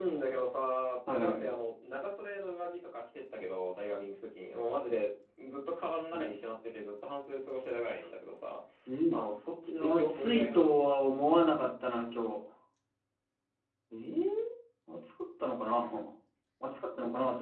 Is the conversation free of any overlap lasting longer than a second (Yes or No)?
No